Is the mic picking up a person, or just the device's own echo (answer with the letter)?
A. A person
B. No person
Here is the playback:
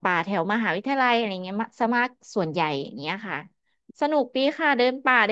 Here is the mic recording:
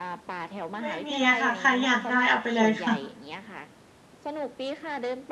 A